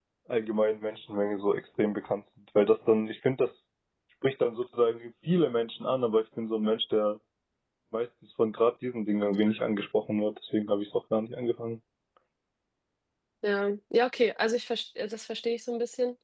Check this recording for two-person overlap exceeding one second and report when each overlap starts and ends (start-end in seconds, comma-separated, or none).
none